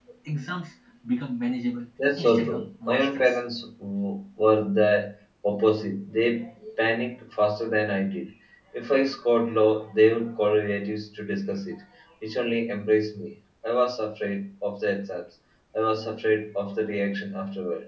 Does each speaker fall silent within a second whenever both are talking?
No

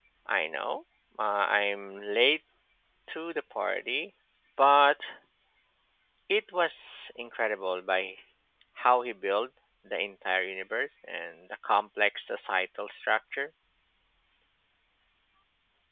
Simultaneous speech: No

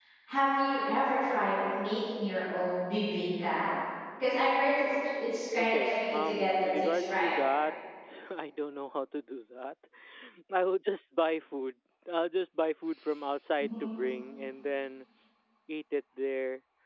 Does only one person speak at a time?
No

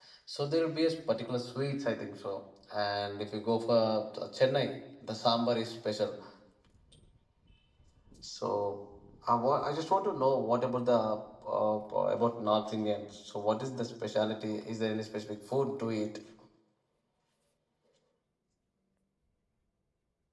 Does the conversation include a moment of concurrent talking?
No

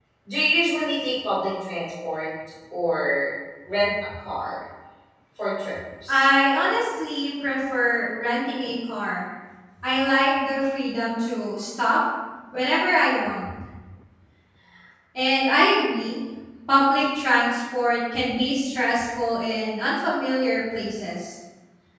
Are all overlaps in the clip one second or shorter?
Yes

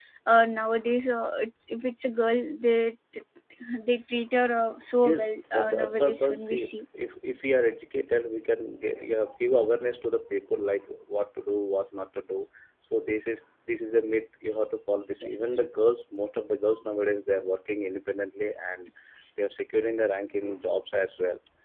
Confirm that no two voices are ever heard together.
No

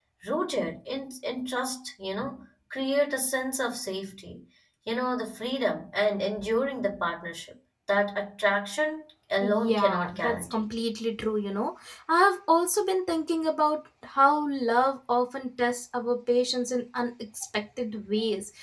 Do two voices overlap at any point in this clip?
Yes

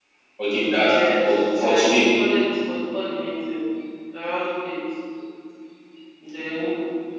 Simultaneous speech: Yes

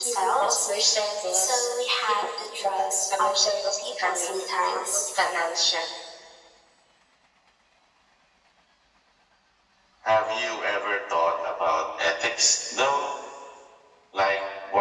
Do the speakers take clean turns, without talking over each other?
No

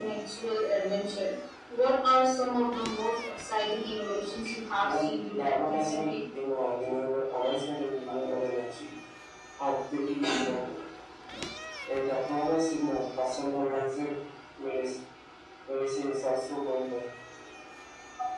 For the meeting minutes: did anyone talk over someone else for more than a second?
Yes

